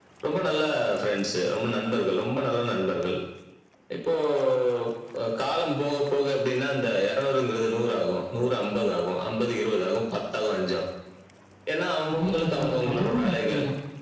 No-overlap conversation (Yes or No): No